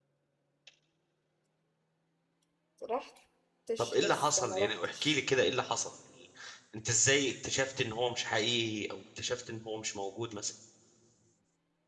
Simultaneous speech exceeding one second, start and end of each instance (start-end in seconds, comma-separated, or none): 3.8-5.2